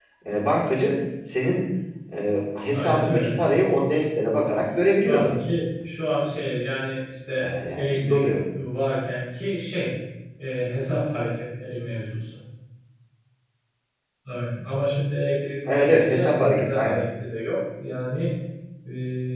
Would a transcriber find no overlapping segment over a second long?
No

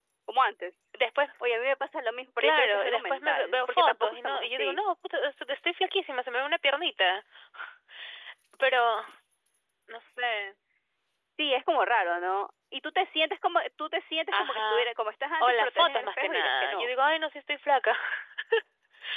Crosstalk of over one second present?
Yes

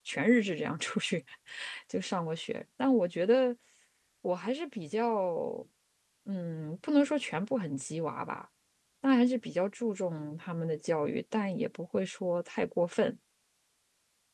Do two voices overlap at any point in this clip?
No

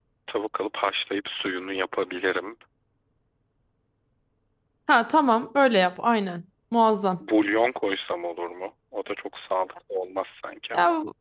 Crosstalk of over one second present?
No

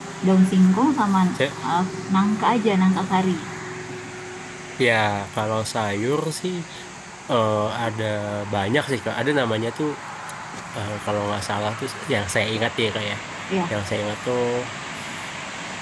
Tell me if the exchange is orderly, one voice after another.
Yes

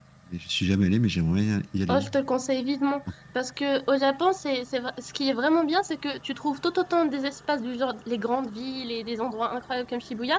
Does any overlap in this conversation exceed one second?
No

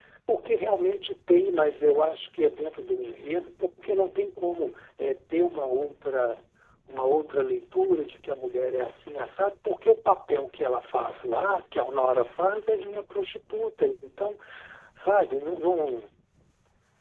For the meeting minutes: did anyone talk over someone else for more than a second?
No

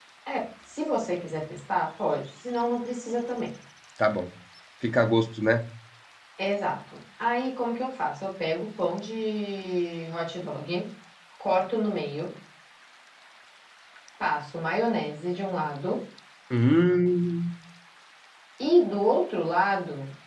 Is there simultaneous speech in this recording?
No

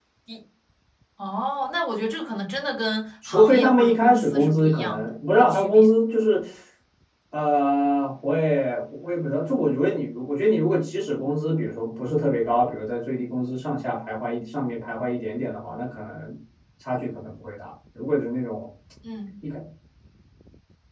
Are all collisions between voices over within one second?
No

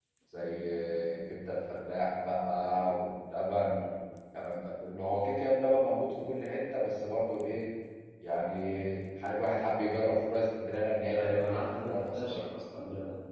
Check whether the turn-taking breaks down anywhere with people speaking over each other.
Yes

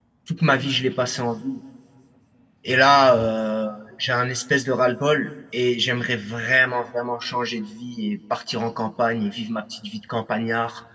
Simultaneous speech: No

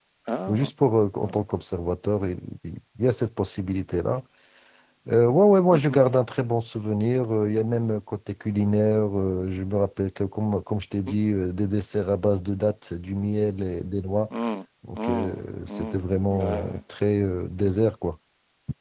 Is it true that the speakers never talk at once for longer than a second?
No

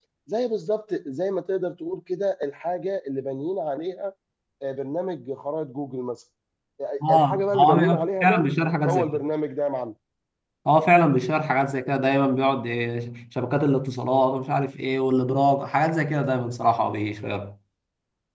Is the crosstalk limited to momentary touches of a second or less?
No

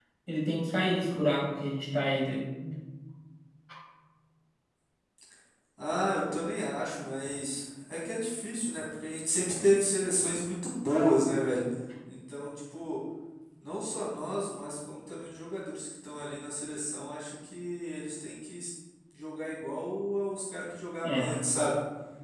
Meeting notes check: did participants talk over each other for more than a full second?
No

